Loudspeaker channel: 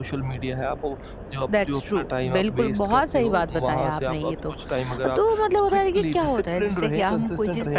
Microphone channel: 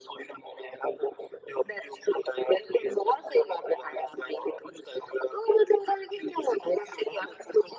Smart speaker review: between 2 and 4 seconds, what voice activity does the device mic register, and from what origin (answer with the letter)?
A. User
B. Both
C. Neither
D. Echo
D